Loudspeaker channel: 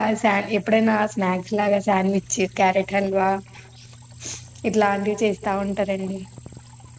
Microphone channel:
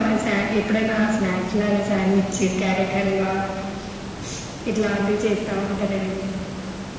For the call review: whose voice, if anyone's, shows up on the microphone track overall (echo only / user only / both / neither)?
echo only